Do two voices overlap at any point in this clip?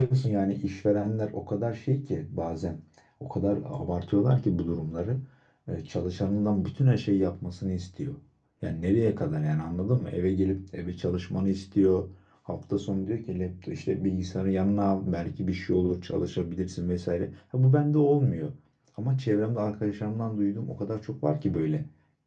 No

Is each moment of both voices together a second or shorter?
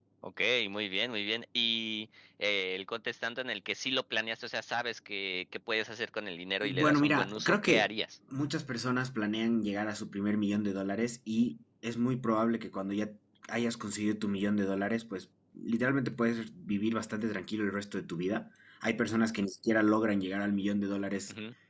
No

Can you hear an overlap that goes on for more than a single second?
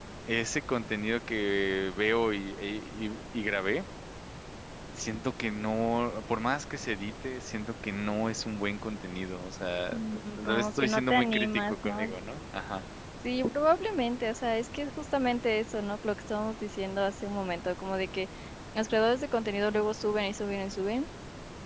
Yes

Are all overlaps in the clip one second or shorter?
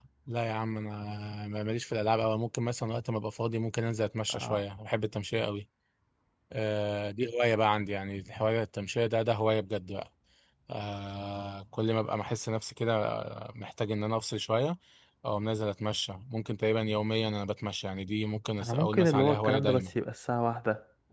No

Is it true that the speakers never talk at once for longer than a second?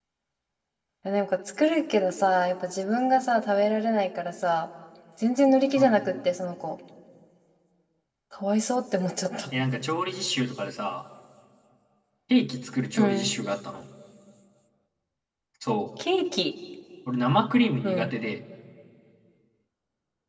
Yes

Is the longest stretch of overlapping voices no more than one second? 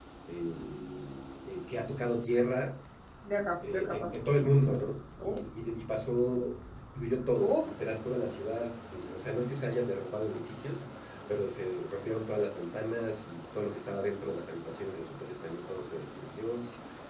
Yes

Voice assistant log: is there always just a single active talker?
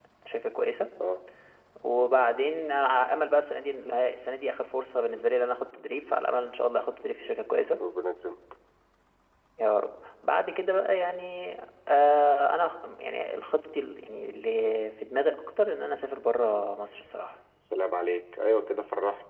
Yes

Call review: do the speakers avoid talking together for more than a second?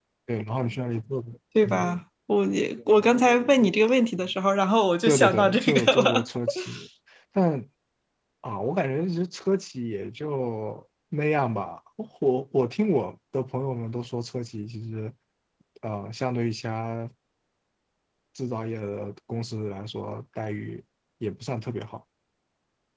No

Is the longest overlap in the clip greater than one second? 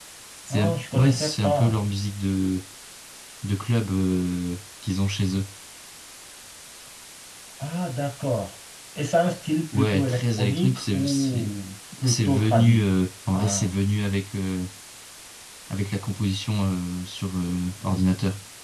Yes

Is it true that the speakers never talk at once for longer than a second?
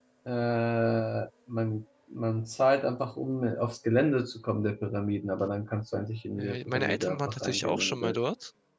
No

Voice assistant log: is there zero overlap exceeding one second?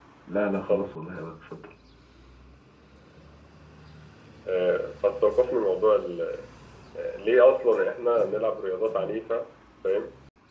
Yes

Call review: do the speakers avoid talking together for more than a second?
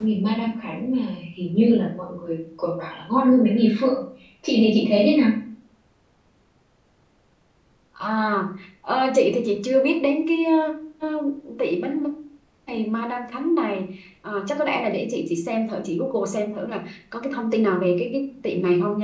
Yes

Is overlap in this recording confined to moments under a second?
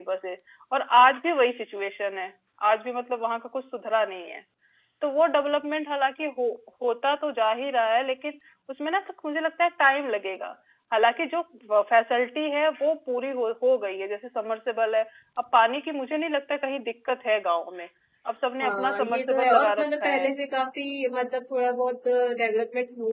No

